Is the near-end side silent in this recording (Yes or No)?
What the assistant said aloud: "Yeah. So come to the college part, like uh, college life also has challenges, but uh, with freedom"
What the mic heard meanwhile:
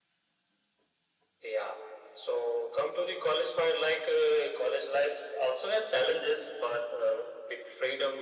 Yes